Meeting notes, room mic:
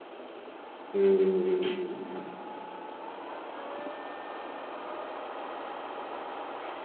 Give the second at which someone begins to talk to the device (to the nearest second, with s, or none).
1 s